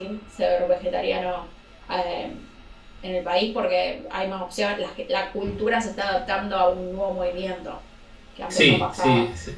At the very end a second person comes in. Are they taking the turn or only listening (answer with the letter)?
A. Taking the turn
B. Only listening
A